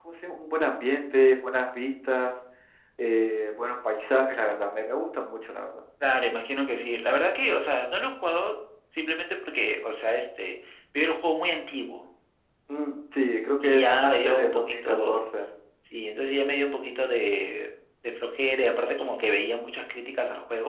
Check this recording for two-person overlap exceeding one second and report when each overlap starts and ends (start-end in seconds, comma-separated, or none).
13.6-15.2